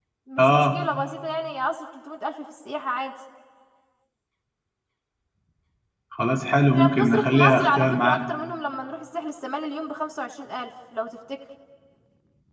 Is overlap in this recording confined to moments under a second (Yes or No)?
No